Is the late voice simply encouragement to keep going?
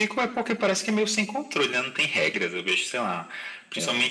Yes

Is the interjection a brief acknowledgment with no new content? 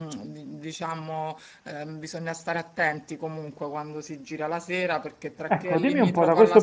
No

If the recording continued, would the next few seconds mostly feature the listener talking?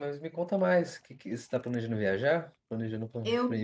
Yes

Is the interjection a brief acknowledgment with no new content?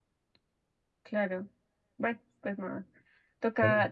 Yes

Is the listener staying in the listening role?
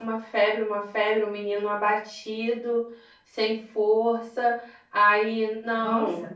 Yes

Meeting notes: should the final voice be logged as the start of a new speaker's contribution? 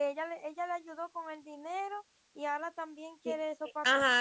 Yes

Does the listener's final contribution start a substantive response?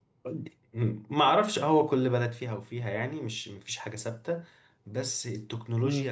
No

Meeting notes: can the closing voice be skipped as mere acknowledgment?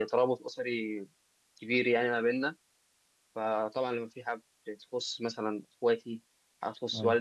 Yes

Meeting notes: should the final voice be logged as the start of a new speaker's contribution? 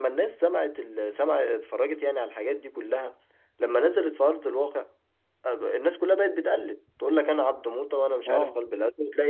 No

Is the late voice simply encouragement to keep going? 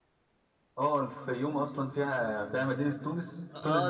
No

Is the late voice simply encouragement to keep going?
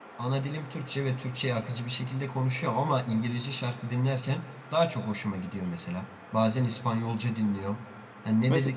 Yes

